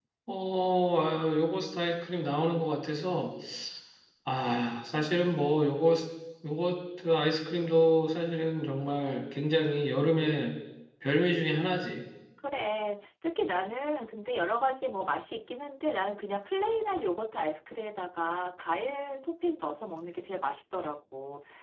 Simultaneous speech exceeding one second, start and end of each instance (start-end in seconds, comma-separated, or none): none